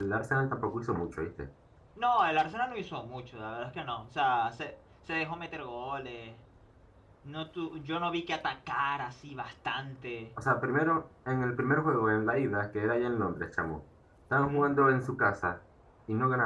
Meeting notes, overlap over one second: none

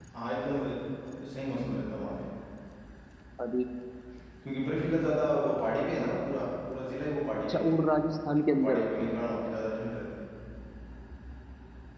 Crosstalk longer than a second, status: none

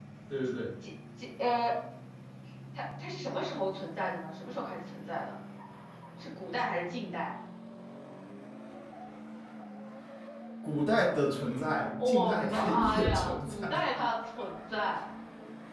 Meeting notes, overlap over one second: present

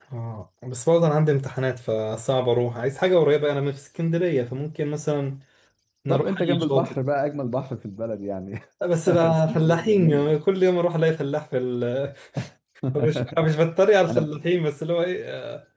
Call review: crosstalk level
present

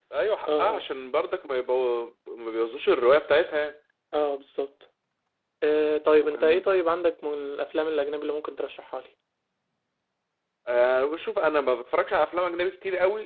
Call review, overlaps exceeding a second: none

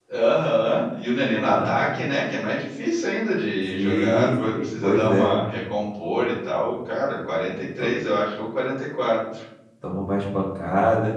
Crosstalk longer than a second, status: present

